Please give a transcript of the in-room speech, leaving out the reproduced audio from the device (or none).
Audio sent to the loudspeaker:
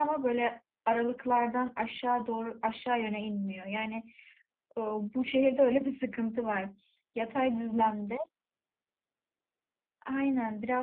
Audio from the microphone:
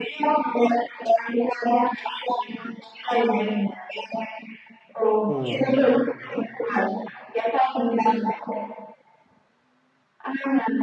Hı.